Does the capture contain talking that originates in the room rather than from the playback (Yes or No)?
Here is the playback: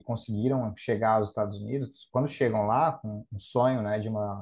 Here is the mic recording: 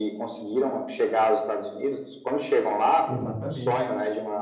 Yes